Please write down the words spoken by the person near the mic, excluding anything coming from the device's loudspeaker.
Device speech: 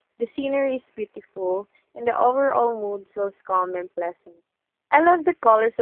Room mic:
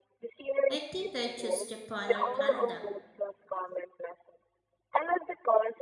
I think I choose Japan or Canada

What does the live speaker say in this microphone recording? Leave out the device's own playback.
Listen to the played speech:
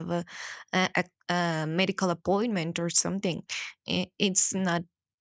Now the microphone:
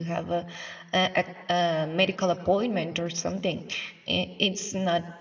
none

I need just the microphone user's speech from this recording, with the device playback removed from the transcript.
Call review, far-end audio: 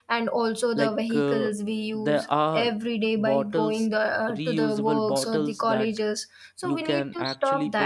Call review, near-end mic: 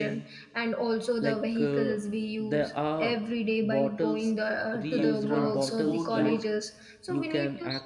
like transport your

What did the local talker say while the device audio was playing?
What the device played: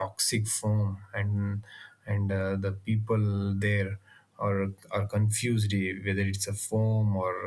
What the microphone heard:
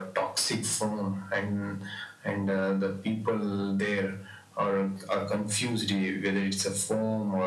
none

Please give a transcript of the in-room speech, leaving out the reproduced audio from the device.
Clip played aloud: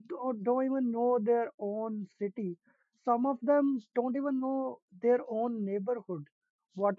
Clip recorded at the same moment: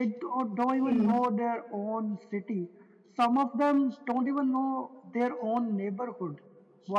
Hmm.

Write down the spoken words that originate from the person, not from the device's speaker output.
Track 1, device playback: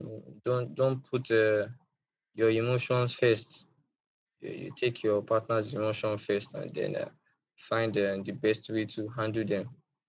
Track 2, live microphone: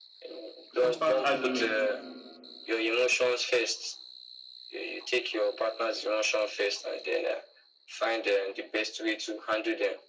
constant argument

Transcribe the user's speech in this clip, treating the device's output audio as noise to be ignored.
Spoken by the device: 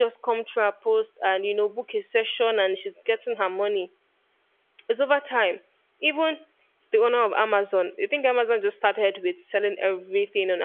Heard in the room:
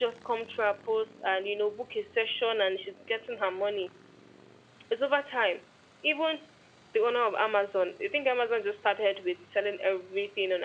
none

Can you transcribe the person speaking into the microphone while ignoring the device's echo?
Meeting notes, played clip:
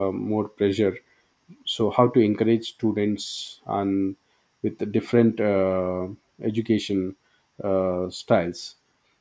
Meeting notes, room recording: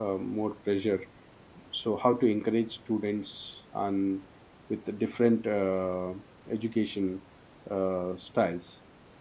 none

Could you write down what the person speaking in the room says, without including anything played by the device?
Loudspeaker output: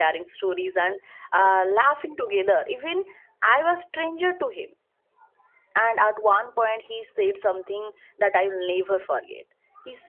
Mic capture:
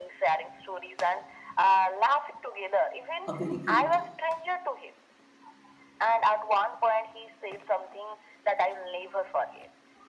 a very great

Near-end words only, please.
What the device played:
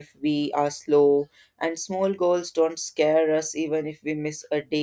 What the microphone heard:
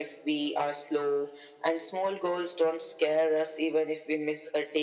none

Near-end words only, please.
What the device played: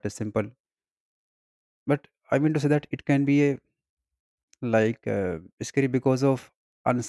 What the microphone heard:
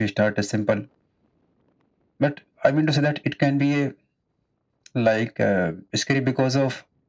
none

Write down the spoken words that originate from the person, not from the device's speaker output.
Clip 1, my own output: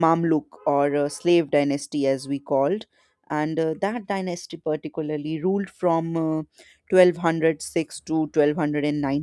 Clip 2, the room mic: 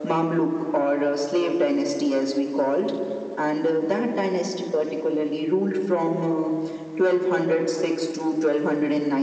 none

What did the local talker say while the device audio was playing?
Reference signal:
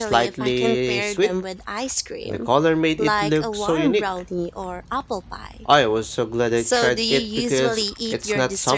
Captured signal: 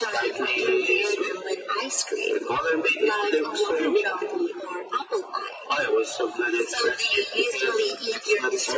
none

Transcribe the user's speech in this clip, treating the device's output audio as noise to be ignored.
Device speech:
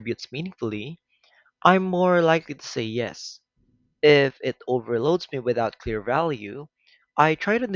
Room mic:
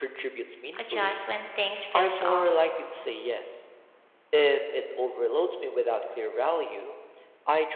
adjust when things feels off.

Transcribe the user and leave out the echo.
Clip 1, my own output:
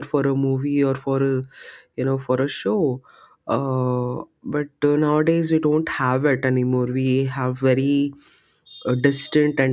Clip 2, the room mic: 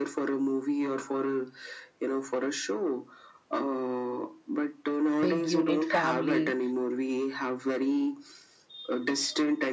big unit family

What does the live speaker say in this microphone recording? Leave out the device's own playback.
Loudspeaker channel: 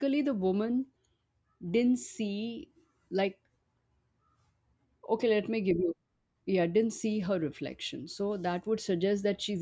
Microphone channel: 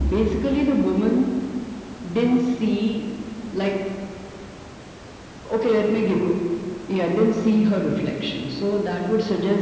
none

